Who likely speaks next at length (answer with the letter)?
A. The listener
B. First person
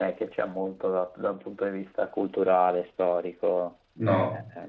A